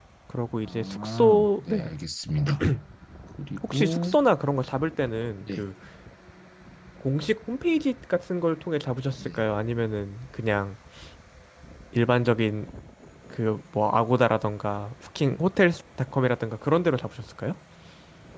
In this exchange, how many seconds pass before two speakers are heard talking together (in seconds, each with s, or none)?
0.6 s